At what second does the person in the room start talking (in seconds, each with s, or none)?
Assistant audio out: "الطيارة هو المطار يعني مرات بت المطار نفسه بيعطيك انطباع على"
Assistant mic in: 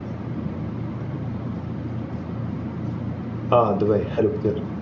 3.5 s